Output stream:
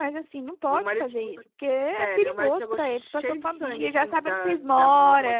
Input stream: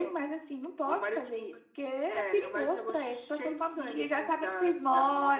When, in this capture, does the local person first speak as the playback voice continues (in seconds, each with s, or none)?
none